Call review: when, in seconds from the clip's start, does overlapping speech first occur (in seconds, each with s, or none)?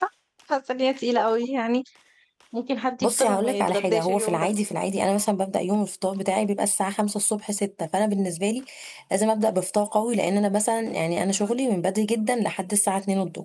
3.0 s